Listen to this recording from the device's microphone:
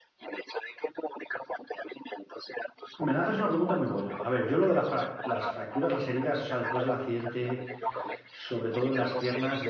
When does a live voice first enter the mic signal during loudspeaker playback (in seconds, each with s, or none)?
3.1 s